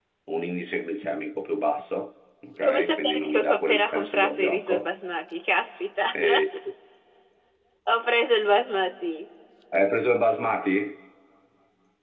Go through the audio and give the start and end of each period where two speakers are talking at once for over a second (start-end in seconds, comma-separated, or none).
2.6-4.9